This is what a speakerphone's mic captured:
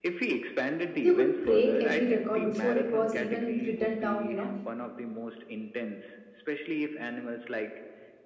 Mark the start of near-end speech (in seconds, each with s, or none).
1.0 s